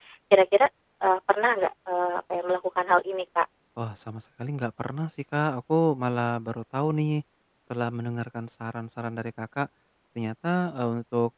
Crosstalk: none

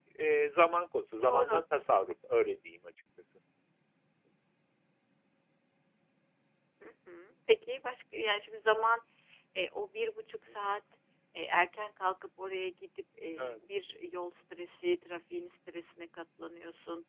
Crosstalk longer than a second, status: none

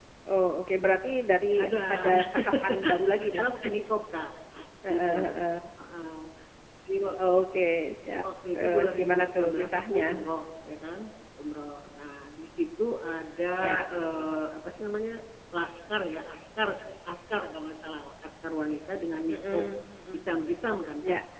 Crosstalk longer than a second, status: present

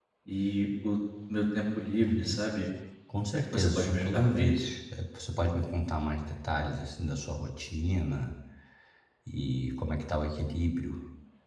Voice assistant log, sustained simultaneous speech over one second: present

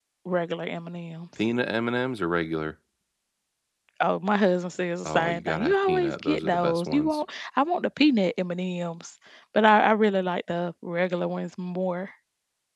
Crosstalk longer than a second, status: present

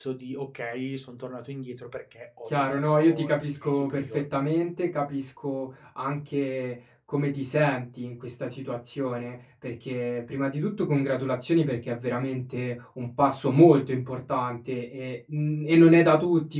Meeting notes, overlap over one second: present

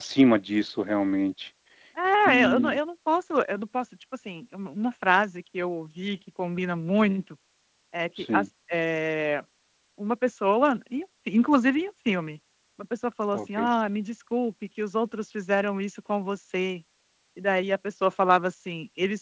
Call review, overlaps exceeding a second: none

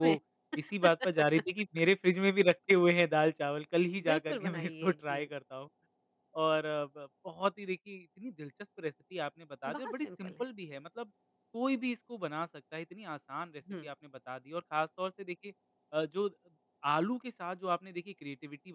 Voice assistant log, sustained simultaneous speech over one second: present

